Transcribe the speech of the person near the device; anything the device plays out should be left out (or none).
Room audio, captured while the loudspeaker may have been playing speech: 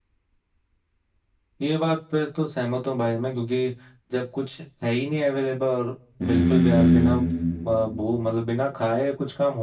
हम्म